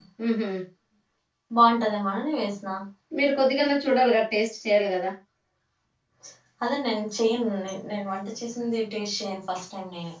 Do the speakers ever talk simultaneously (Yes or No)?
No